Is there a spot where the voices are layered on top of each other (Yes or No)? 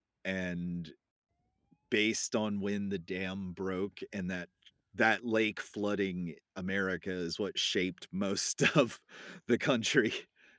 No